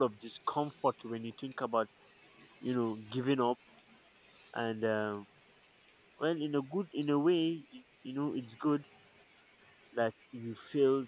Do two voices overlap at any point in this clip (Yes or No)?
No